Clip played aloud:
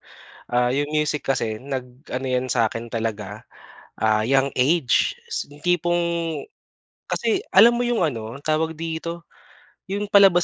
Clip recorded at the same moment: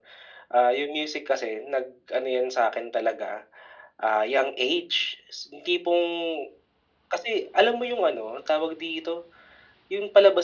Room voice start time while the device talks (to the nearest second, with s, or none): none